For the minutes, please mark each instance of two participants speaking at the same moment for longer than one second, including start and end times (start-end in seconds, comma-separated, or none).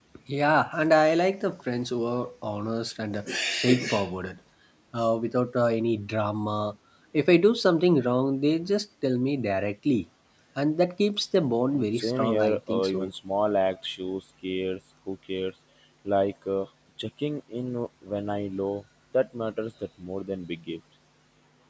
11.7-13.1